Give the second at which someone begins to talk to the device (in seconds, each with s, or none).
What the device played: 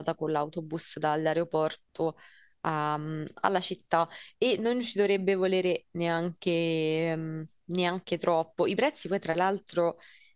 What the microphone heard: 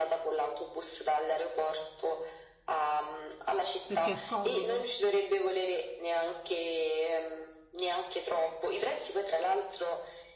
3.8 s